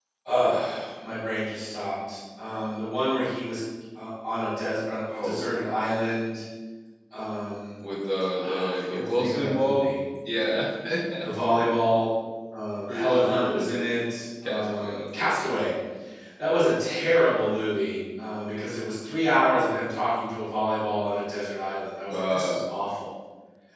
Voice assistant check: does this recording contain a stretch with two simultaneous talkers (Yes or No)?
Yes